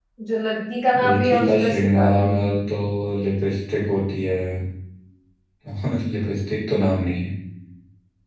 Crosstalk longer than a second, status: present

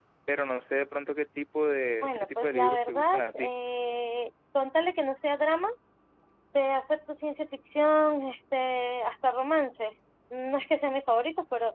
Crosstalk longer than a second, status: present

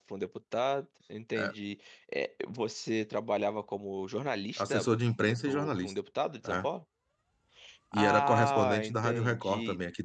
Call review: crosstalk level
present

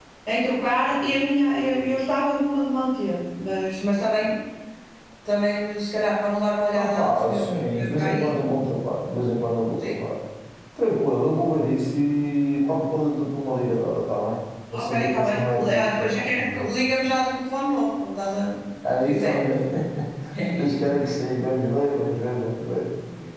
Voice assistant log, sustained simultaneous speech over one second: present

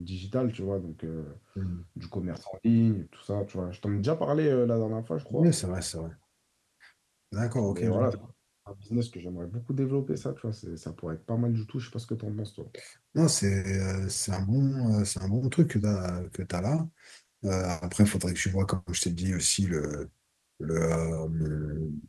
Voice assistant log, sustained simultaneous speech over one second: none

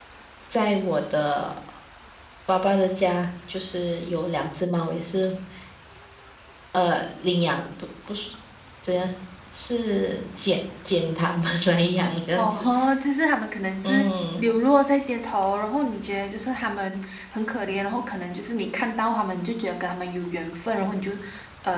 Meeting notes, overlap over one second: none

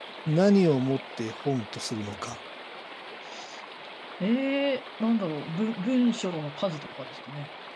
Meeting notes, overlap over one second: none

